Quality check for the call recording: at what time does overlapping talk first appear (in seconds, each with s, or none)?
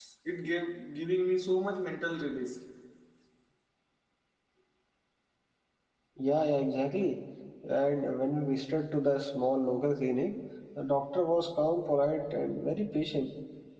none